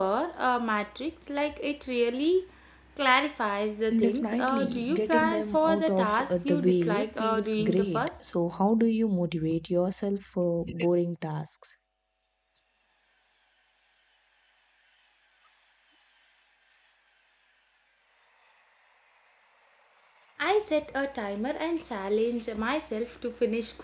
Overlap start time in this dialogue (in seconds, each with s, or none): 3.9 s